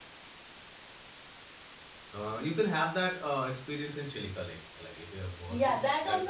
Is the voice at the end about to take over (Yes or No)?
Yes